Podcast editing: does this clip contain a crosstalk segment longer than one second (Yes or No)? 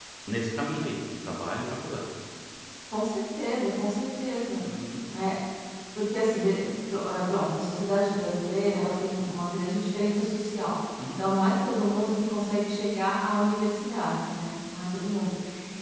No